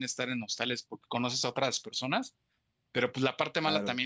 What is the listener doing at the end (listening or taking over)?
listening